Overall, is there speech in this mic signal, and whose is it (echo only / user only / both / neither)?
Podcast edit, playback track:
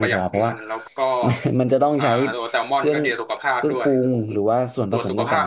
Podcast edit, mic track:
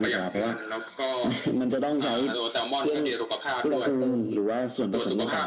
both